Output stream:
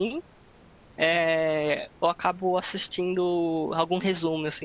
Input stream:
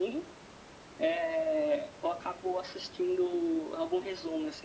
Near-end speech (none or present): none